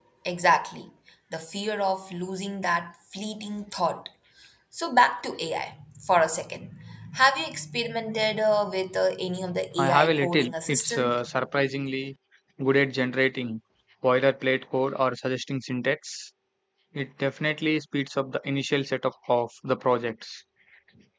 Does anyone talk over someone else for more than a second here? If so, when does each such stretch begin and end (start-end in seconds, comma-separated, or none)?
9.8-11.2